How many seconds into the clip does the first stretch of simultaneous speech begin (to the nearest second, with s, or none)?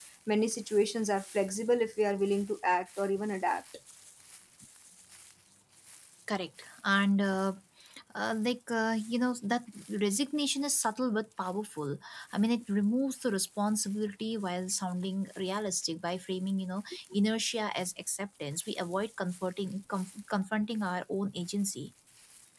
none